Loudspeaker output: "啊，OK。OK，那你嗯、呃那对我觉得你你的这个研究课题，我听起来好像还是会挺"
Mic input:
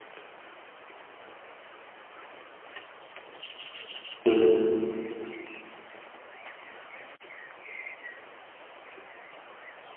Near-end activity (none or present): present